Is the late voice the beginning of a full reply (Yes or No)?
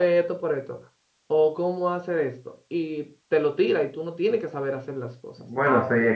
Yes